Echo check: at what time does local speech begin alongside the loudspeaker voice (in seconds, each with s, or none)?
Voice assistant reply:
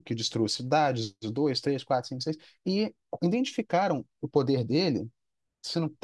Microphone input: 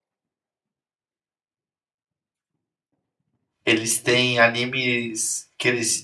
3.6 s